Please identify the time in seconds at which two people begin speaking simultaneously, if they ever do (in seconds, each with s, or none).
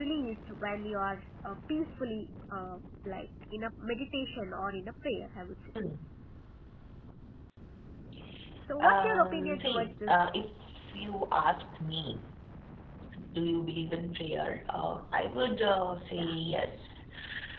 8.8 s